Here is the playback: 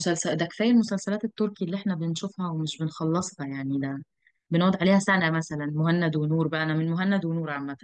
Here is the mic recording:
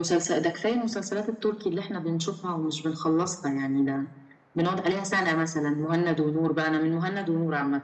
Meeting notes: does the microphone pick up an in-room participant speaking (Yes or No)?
No